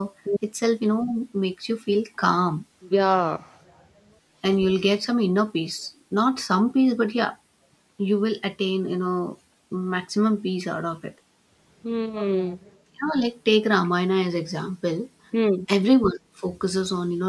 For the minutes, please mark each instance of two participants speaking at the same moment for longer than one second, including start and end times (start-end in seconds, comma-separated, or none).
none